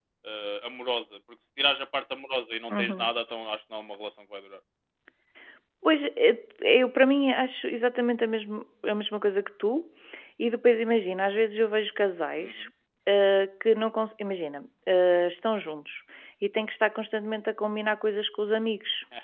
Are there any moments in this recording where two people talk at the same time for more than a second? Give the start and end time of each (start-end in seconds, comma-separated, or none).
none